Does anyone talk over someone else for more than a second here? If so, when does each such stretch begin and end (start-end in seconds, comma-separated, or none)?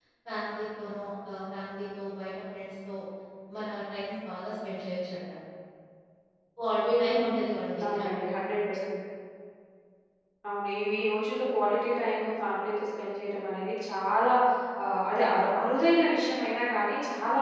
none